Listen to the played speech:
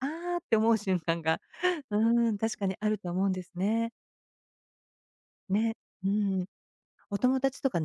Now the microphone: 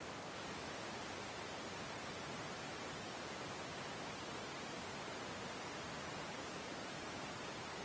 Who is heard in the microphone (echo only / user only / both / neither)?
neither